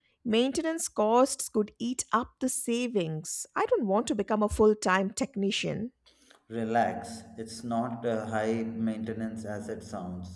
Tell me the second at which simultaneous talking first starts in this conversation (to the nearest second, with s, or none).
none